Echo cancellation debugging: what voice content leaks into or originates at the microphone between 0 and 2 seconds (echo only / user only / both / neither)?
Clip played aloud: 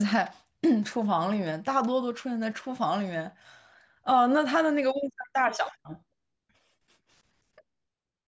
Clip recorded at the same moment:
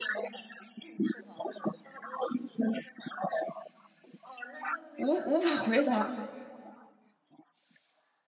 echo only